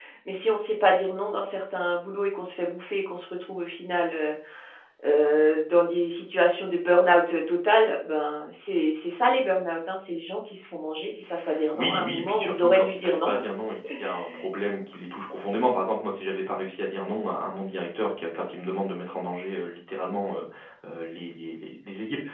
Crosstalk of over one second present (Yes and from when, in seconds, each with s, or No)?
Yes, from 11.7 s